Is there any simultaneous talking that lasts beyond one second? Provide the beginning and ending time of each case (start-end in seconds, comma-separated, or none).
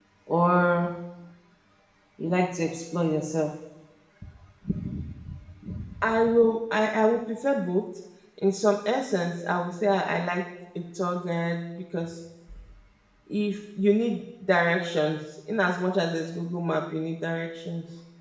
none